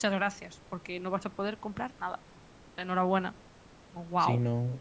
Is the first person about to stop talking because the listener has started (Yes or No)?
Yes